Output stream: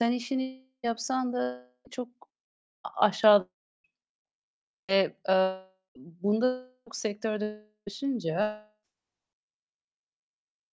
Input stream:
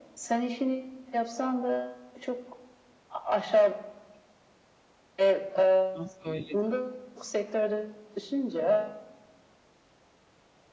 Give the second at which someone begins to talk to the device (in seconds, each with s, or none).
5.5 s